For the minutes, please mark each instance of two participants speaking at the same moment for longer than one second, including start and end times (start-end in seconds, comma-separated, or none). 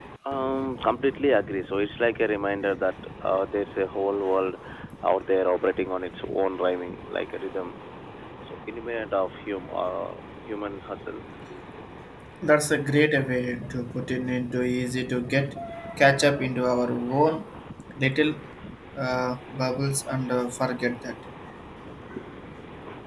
none